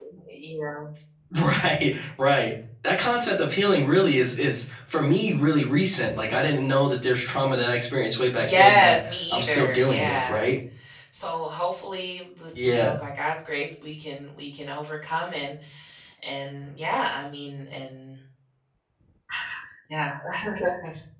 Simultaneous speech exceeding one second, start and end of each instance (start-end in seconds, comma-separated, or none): 8.4-10.3